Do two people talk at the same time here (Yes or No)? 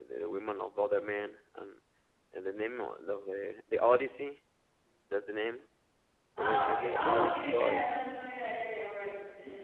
Yes